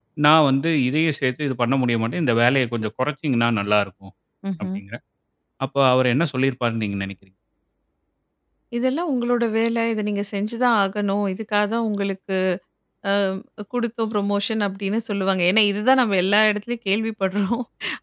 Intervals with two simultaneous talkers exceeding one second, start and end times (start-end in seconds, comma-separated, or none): none